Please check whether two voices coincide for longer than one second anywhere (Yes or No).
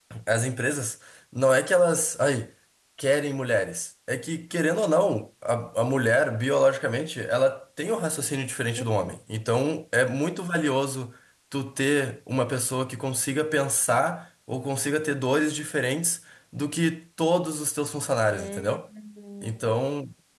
No